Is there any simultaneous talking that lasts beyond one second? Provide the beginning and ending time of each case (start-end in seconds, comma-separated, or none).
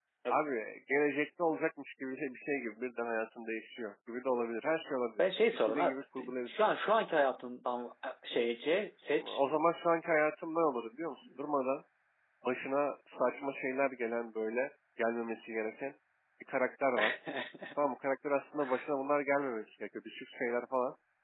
5.2-6.5